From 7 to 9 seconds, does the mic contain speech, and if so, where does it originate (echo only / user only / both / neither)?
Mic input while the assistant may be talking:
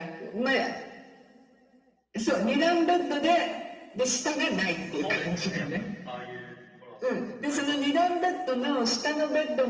both